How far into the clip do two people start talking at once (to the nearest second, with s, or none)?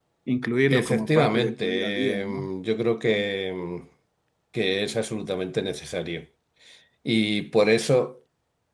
1 s